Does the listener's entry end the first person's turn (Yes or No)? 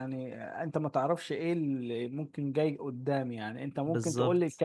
No